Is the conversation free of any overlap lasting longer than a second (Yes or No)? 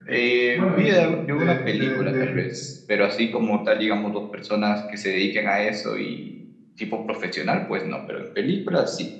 No